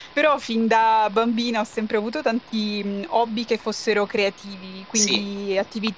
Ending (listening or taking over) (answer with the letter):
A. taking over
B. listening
B